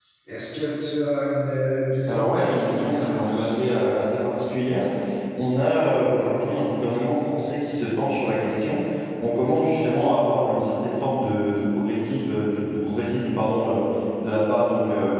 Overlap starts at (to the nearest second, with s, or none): 2 s